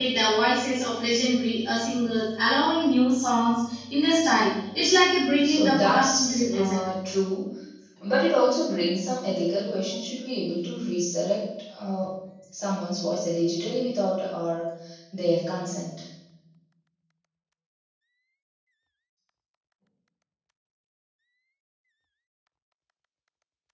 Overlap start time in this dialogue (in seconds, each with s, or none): 5.4 s